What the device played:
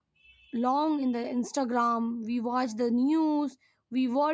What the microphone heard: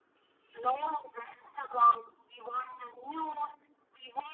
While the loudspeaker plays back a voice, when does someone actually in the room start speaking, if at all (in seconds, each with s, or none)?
none